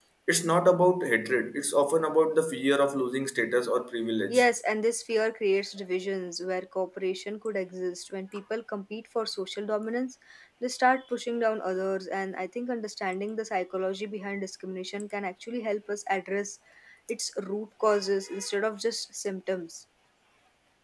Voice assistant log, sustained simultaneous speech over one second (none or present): none